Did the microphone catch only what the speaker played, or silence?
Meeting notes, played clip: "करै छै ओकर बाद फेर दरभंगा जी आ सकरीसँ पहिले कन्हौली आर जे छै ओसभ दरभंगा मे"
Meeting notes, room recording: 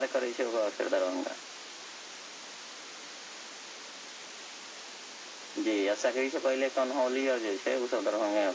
Yes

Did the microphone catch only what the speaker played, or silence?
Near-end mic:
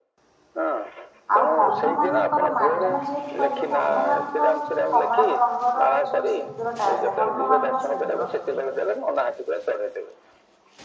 No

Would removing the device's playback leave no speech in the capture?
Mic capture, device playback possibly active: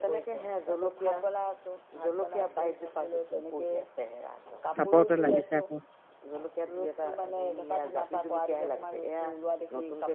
No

